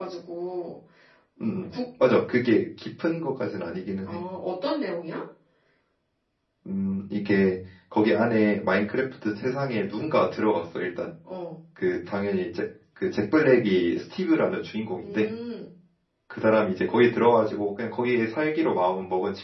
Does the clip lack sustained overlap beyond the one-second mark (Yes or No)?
Yes